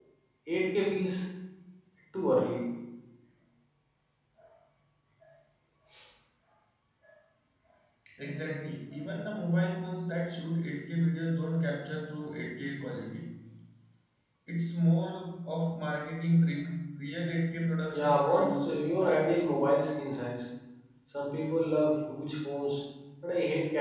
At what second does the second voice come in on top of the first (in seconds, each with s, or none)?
17.9 s